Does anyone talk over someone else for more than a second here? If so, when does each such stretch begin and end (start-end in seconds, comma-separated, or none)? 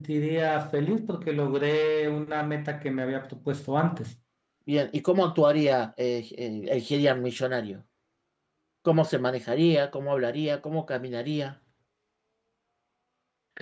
none